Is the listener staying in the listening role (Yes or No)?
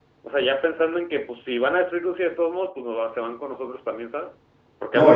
No